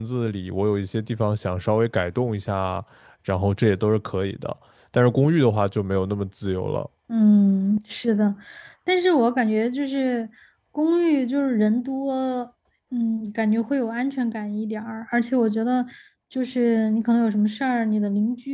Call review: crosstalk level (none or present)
none